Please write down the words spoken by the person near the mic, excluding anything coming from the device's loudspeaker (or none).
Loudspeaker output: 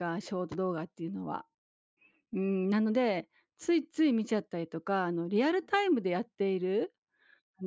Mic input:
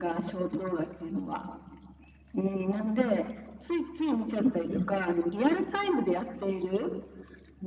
う、うん。